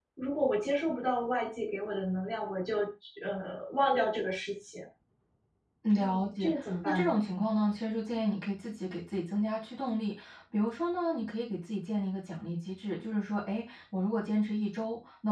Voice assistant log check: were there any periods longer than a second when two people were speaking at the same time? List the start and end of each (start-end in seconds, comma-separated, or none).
6.0-7.2